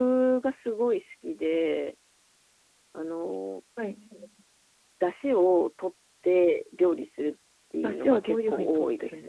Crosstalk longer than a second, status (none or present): present